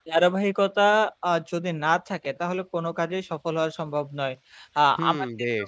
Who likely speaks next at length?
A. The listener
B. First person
A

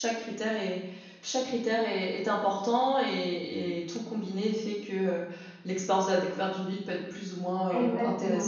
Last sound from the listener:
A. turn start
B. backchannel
A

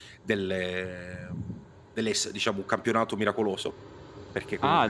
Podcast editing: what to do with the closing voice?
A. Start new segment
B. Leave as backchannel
A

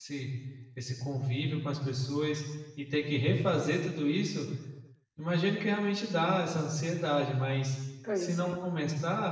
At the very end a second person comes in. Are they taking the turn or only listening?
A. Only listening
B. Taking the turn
A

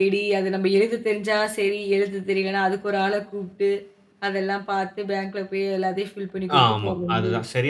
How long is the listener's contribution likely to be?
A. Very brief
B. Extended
B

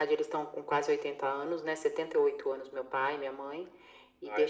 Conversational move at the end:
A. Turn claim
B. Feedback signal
B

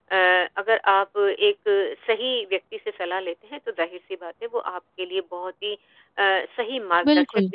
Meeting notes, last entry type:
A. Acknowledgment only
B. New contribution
A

